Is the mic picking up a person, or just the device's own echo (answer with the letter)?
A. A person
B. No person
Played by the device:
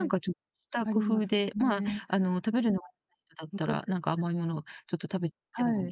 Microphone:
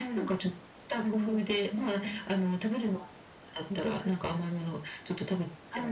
B